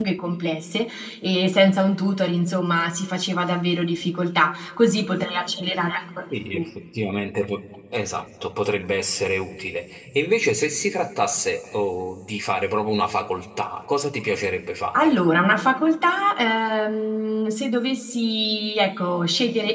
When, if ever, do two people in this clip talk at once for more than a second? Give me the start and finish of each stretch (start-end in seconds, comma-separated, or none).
none